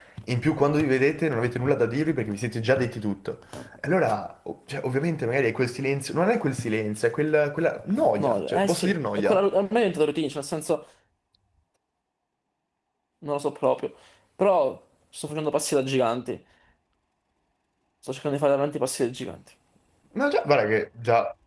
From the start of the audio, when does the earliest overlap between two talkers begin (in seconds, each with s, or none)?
8.2 s